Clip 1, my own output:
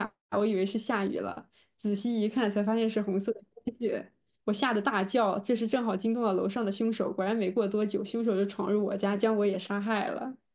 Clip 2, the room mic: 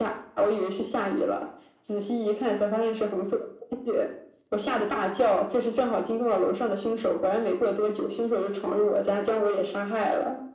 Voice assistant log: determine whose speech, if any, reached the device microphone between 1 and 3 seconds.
echo only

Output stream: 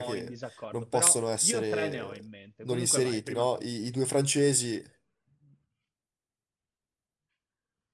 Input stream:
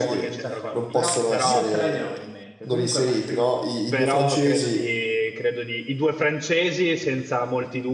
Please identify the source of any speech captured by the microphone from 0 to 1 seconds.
both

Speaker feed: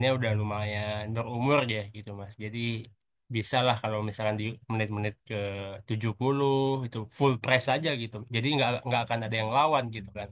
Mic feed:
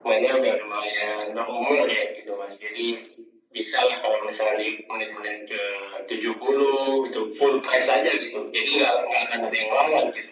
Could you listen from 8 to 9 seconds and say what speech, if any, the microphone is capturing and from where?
echo only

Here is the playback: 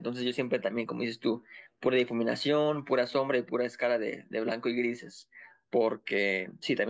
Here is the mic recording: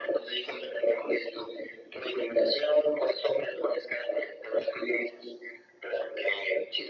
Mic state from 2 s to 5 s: echo only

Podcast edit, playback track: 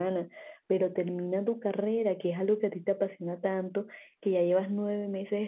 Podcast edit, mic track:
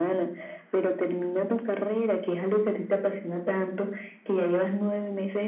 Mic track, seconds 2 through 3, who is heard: echo only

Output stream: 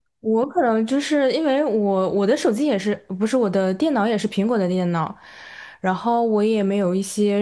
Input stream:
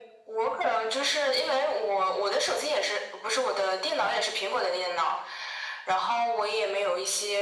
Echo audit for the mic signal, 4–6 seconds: echo only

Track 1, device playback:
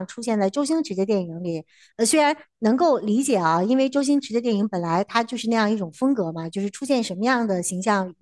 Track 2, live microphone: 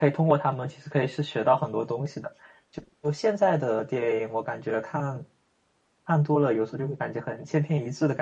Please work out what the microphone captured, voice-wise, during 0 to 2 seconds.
user only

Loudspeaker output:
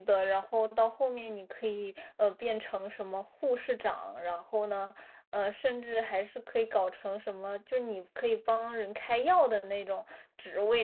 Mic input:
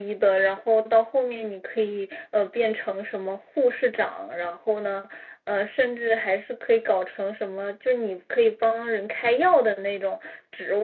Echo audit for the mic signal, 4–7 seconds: echo only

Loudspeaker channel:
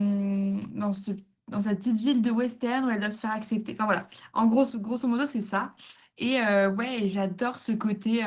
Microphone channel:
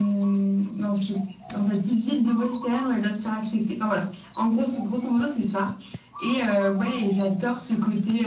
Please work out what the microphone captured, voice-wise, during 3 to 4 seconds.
echo only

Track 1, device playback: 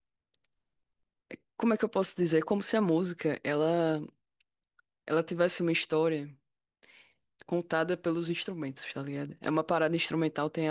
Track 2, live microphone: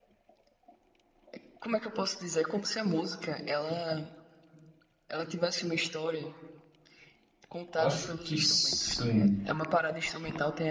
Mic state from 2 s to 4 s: echo only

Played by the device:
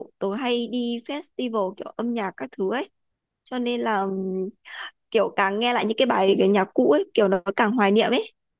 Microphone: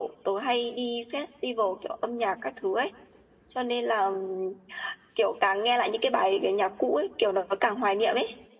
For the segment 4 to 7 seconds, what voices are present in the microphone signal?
echo only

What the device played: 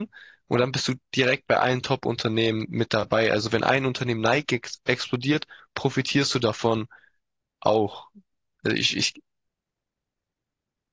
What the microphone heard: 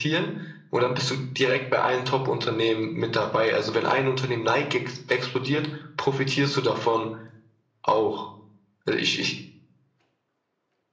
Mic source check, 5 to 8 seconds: echo only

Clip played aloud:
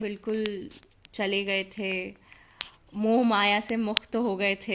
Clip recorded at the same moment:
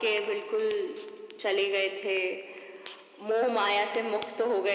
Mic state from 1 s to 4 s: echo only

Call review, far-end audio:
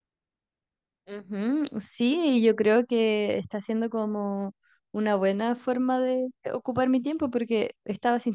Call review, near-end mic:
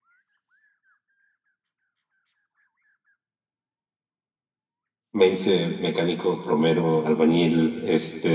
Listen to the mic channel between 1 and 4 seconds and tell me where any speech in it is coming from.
neither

